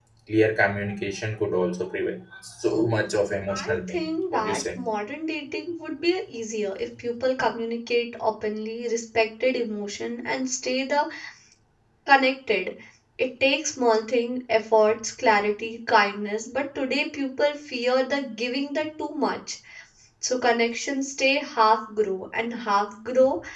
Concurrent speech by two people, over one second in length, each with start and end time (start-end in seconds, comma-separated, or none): 3.5-4.8